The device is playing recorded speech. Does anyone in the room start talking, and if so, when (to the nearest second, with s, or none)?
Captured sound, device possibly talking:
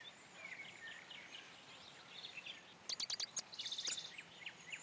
none